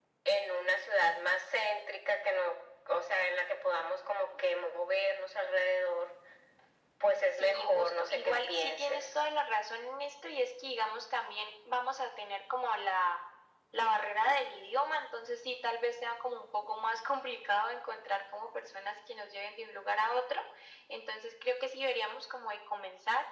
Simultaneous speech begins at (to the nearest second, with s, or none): 7 s